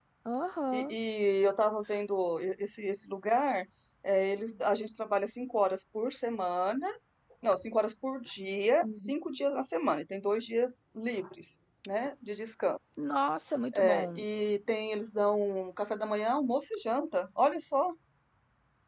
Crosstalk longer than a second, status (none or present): none